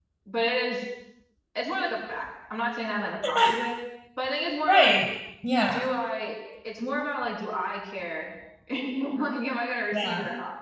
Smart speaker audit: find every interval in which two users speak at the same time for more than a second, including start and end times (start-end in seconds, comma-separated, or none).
none